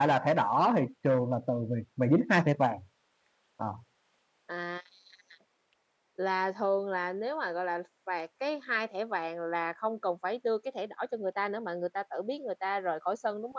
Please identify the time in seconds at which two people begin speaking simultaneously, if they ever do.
none

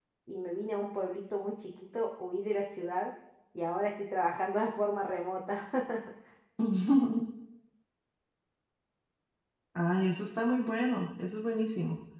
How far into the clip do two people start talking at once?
none

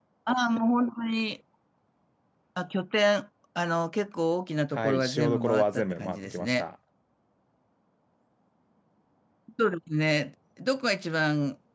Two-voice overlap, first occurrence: 4.7 s

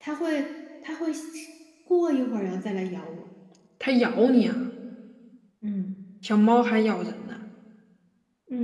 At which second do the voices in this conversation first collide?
none

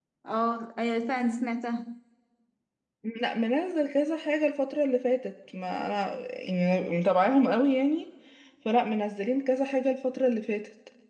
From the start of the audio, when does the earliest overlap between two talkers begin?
none

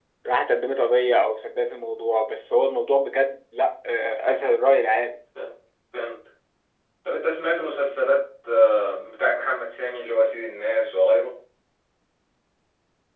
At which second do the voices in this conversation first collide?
none

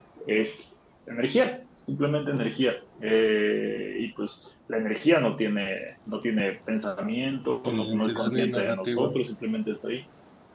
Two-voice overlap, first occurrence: 7.7 s

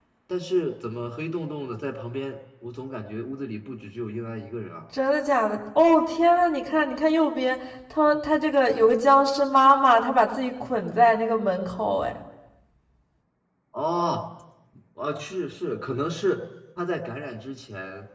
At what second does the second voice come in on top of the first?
none

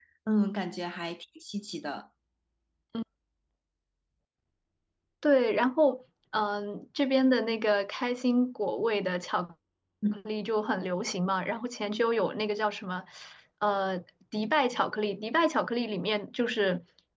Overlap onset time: none

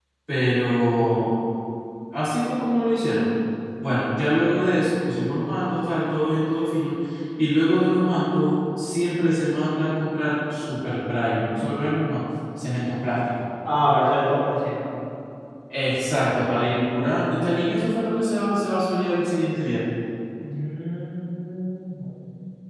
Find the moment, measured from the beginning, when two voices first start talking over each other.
none

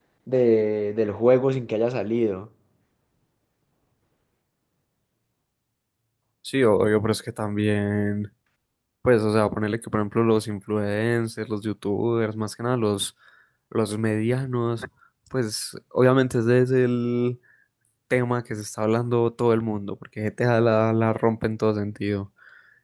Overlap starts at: none

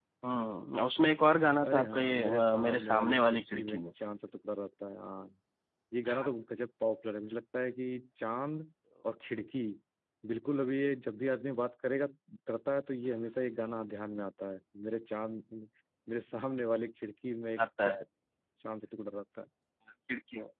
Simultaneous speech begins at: 1.6 s

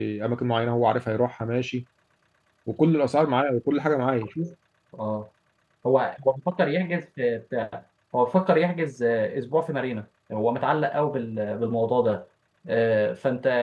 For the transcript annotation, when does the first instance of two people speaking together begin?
none

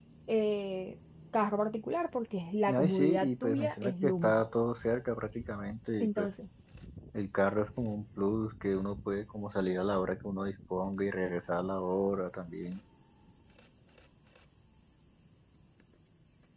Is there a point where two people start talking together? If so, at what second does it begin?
2.7 s

